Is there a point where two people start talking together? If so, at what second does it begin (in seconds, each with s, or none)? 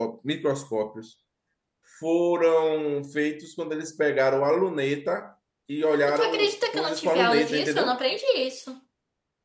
6.1 s